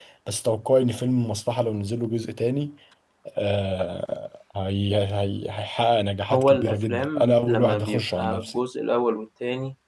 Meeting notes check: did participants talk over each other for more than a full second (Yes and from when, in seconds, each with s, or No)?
Yes, from 6.3 s